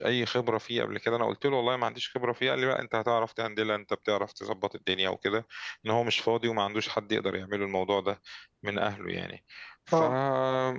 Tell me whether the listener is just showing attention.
Yes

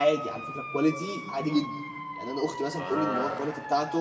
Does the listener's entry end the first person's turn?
No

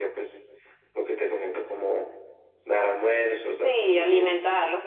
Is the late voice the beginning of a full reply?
Yes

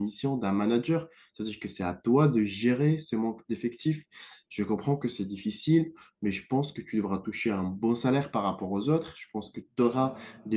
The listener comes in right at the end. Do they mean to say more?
No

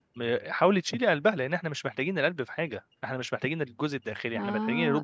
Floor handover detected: Yes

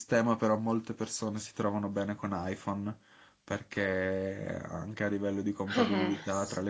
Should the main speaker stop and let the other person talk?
No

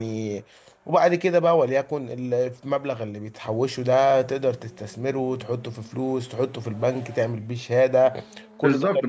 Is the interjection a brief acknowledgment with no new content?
No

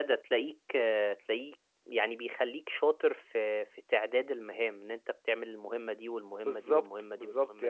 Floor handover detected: Yes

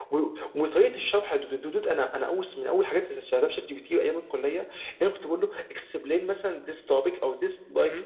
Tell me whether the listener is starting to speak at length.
No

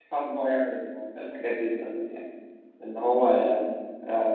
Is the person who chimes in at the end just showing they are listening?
Yes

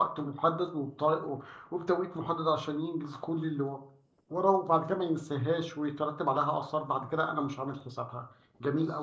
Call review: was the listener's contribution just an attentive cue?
No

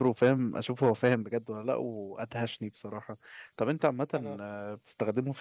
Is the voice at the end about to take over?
No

